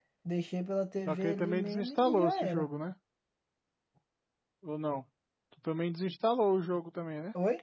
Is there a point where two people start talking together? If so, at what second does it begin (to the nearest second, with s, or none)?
1 s